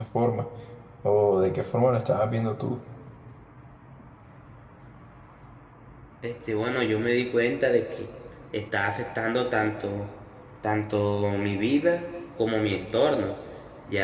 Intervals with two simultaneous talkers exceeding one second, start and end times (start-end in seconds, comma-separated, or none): none